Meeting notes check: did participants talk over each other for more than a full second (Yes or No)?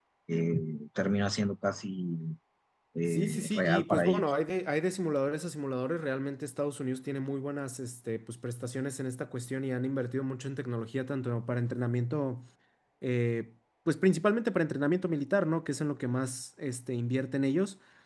Yes